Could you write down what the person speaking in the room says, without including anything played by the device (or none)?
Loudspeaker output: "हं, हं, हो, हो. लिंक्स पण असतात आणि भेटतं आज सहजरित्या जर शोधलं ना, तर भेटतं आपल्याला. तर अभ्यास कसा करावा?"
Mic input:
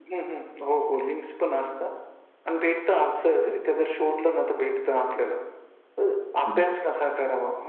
पण करा.